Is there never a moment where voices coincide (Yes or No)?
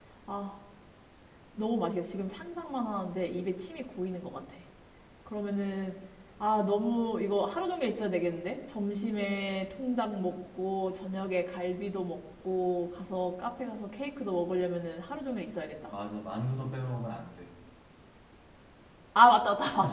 Yes